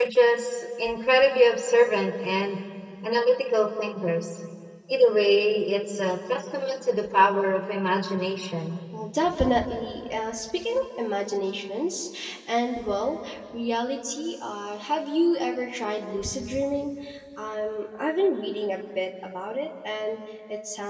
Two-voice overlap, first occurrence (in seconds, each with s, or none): none